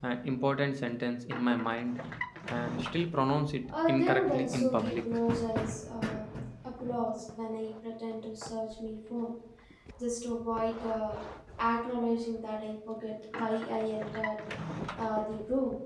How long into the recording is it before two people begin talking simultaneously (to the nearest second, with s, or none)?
4 s